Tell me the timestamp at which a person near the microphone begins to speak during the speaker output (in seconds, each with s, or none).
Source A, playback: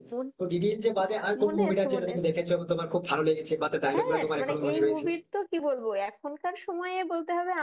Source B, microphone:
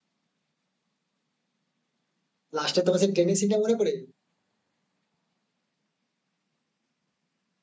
2.6 s